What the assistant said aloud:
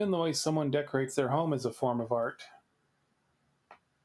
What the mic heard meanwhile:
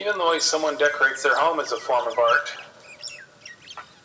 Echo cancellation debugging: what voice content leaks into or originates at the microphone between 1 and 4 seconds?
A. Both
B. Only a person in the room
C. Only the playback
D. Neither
C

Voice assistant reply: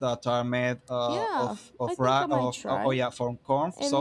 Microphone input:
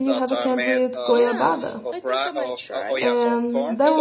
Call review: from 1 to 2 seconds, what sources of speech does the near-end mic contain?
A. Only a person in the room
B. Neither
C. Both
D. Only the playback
C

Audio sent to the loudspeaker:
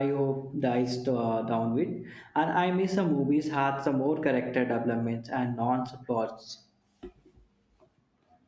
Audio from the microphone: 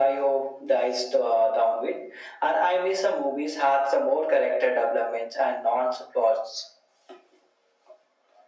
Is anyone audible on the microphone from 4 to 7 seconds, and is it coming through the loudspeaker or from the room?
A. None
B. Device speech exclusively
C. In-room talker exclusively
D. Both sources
B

